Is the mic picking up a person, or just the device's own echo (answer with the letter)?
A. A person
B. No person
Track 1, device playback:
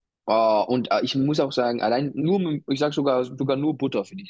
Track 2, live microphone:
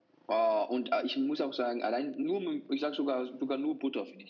B